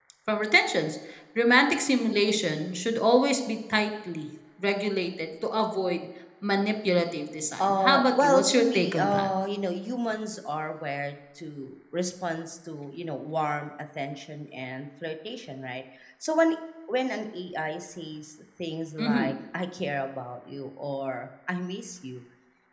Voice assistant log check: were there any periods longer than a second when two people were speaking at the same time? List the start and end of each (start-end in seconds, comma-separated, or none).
7.6-9.3